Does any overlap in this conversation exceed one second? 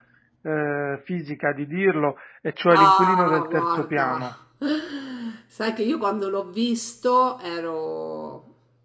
Yes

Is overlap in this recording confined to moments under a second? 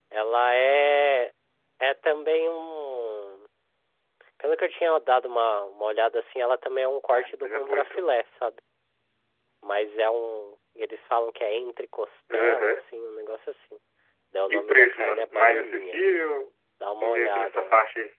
No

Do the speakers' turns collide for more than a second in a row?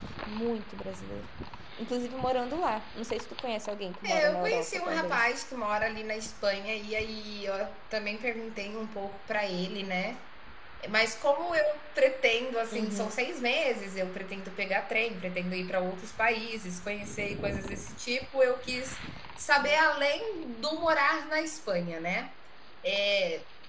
Yes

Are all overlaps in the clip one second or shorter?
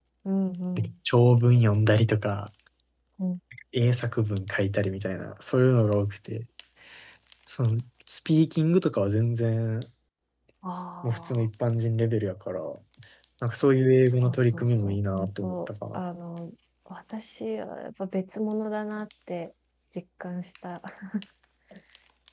No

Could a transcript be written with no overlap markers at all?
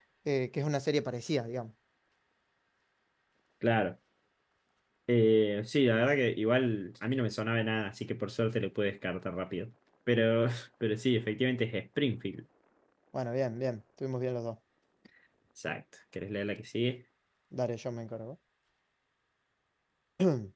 Yes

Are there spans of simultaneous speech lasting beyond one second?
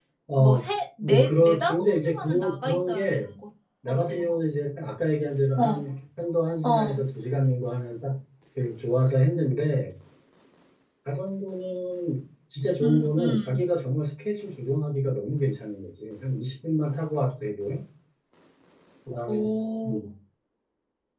Yes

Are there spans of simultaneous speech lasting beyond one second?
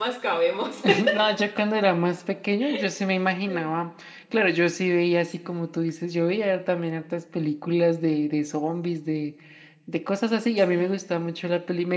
No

